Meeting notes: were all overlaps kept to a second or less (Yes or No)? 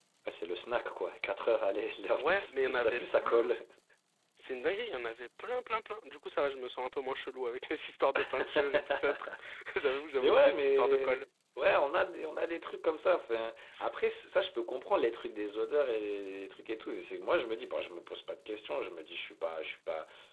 No